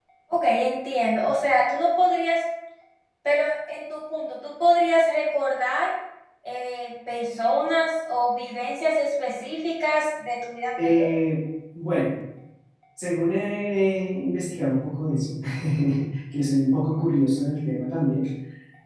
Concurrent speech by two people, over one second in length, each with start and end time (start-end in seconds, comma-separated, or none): none